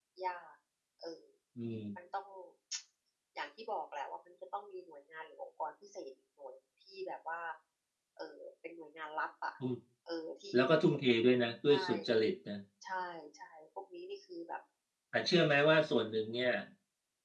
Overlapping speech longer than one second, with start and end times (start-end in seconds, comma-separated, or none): none